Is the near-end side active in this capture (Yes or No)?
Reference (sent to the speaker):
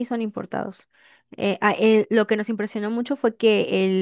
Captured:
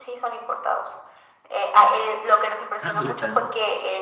Yes